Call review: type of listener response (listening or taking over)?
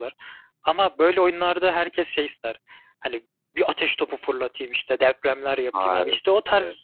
listening